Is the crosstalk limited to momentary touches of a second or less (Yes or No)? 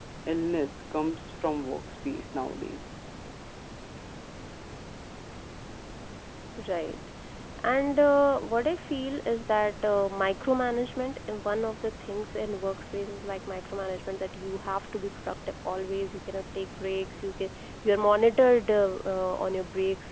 Yes